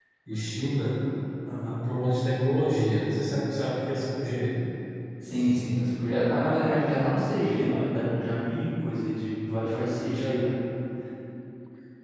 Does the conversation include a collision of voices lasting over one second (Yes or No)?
No